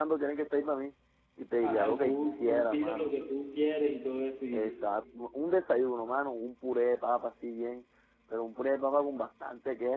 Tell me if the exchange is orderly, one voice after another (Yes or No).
No